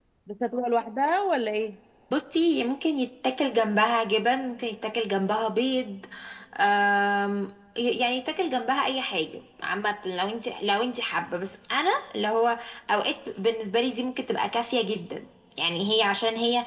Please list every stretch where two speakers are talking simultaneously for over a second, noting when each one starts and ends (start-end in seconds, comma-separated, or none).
none